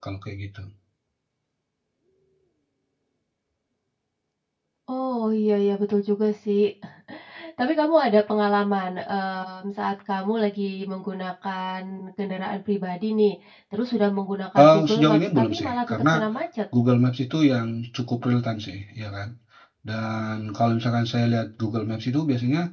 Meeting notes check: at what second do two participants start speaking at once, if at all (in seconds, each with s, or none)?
14.6 s